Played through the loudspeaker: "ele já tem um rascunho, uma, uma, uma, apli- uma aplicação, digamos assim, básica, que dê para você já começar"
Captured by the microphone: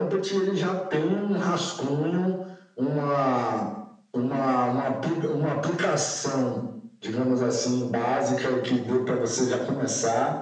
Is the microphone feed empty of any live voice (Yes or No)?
Yes